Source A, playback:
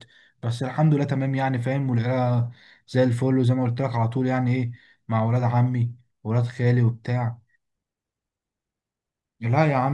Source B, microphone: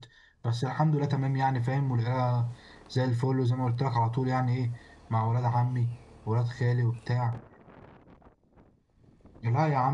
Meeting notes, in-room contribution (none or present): none